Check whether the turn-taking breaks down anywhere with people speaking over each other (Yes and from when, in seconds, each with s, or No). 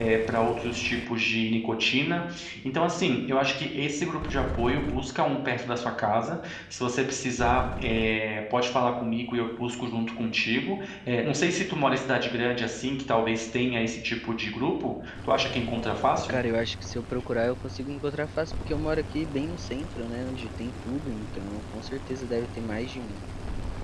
No